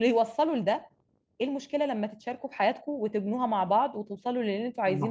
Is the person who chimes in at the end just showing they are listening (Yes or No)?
No